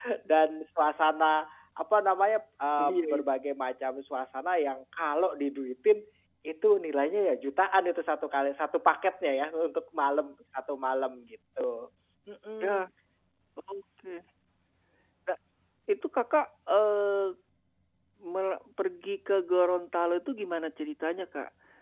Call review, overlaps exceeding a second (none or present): none